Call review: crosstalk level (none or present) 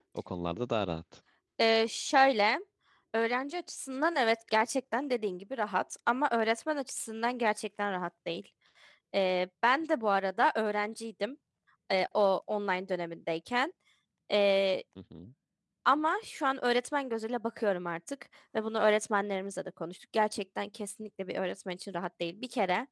none